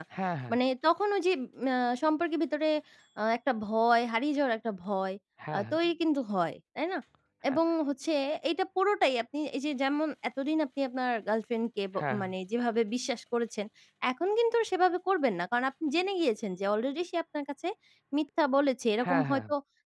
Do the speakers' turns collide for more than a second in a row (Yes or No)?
No